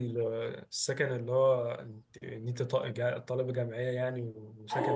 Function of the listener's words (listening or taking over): taking over